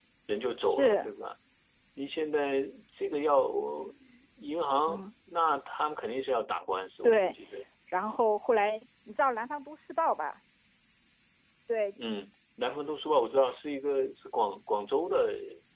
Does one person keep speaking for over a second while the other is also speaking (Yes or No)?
No